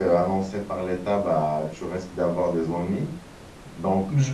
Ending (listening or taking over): listening